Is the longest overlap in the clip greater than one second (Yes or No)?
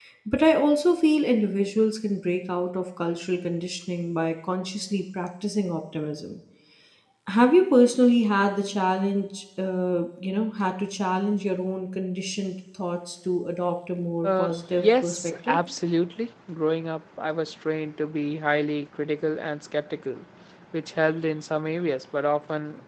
Yes